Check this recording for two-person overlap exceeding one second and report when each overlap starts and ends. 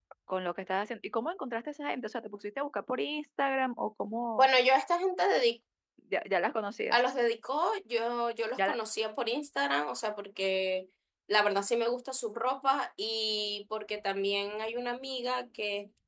none

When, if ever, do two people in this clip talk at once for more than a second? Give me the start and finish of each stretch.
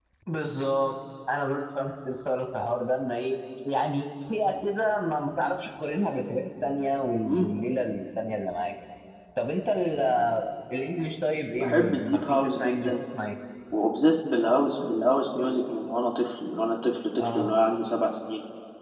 11.6-13.0

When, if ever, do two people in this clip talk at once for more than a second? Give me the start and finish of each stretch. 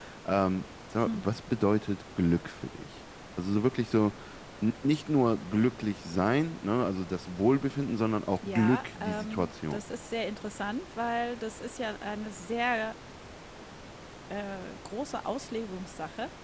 8.4-9.8

